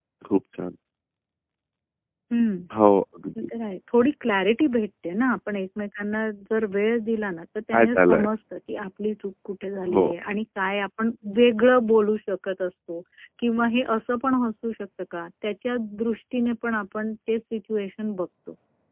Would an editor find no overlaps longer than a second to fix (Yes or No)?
Yes